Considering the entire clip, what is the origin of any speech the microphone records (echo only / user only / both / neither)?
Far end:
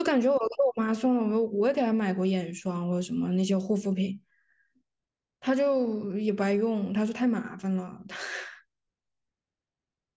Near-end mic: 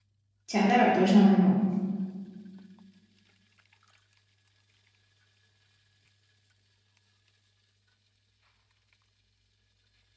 user only